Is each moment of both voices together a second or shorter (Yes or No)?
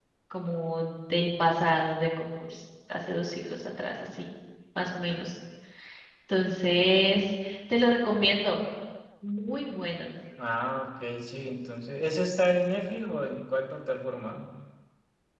Yes